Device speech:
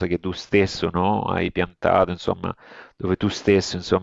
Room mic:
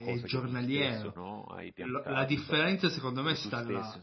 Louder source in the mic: user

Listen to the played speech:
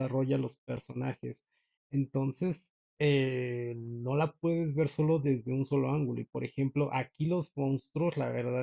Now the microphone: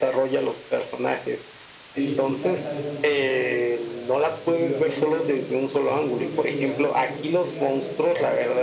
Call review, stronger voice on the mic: echo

